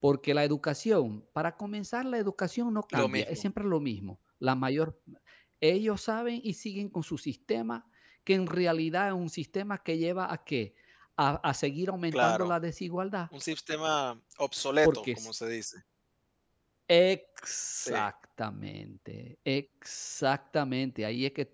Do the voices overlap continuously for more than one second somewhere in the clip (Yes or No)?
No